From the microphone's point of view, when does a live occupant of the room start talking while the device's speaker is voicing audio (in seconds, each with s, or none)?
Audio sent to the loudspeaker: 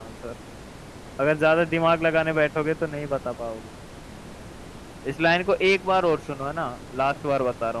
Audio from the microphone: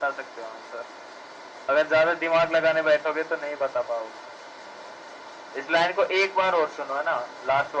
none